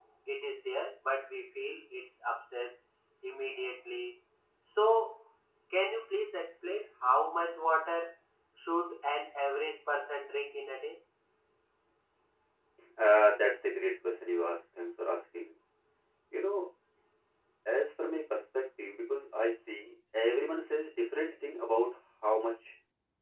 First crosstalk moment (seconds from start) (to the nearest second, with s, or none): none